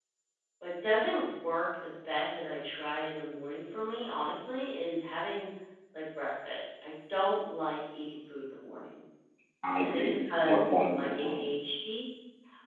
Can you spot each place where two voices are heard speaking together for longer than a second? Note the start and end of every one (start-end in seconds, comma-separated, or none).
9.8-11.4